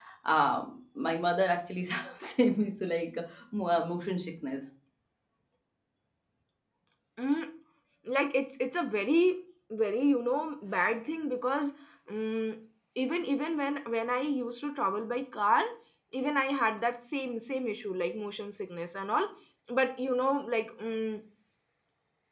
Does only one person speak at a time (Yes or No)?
Yes